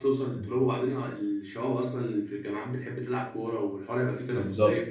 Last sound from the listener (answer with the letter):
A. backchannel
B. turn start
B